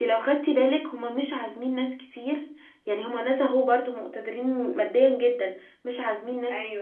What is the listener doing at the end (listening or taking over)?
listening